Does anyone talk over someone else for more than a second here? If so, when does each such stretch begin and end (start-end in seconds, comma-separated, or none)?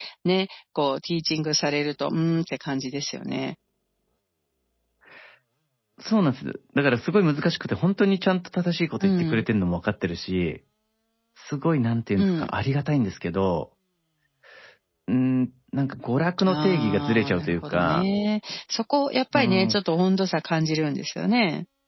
16.5-18.0